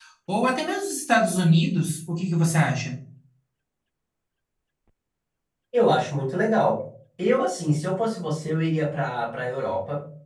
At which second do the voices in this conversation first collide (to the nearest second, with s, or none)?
none